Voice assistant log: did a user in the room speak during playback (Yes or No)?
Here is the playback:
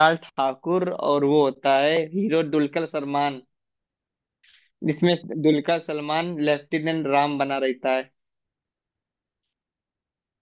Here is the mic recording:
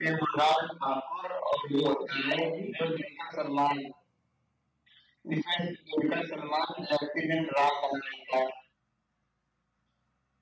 No